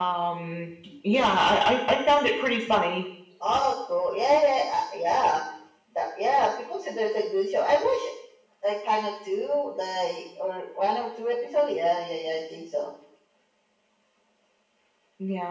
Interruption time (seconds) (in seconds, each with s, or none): none